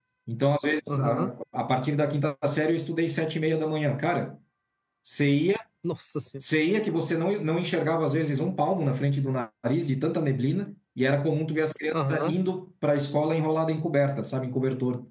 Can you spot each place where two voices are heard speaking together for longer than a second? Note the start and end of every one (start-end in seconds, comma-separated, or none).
none